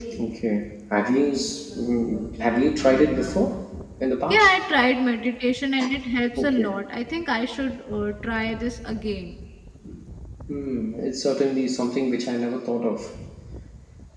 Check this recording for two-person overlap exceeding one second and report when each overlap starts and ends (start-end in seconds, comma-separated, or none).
none